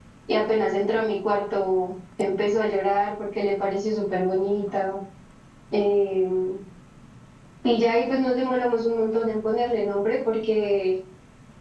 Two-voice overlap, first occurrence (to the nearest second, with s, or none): none